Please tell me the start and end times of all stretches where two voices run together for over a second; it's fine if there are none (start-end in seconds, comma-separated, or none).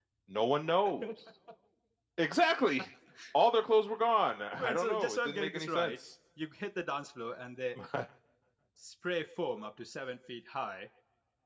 4.6-5.9